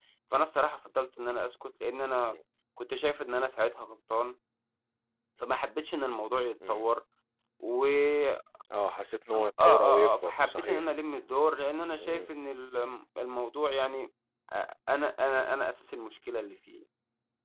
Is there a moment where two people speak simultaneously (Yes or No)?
Yes